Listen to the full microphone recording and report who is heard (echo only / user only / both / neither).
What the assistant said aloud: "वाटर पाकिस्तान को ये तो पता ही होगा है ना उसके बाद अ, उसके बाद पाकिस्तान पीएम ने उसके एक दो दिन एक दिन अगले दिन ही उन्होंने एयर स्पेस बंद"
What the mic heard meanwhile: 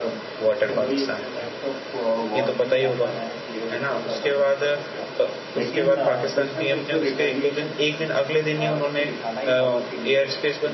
both